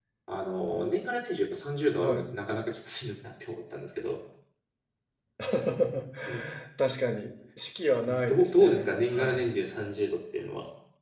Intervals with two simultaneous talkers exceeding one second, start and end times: 8.1-9.5

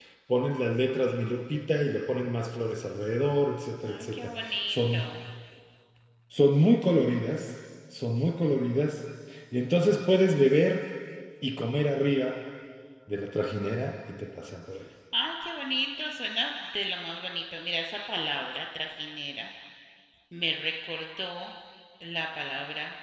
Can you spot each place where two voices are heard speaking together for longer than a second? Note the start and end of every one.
3.9-5.2

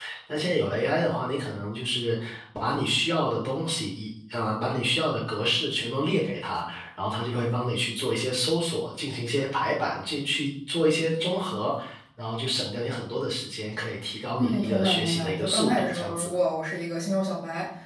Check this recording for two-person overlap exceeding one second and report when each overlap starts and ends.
14.4-16.3

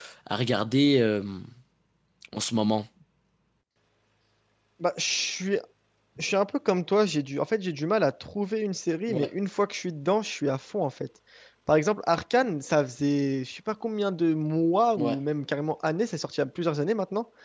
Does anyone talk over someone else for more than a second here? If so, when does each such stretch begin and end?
none

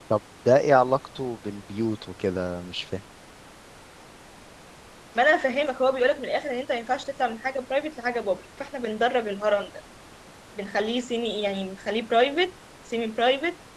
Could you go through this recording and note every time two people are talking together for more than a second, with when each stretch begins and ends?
none

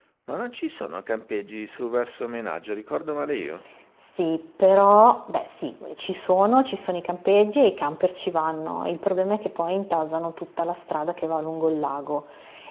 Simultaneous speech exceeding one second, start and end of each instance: none

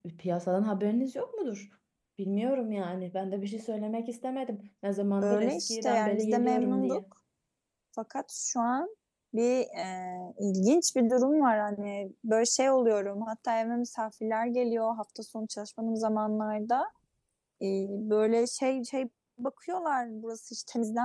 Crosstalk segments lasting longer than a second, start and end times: 5.2-7.0

